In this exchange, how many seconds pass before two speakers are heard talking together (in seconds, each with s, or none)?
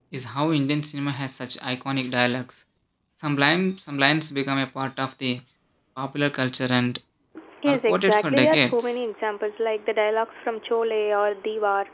7.7 s